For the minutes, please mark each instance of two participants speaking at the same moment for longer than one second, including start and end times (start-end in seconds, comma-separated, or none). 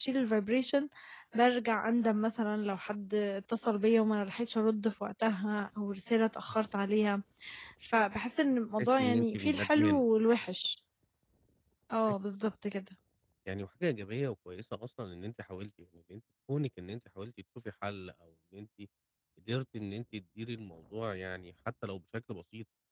8.8-10.0